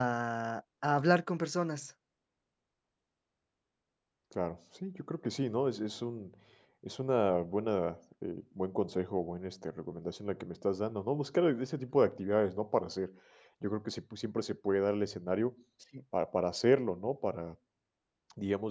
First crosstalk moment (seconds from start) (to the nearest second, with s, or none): none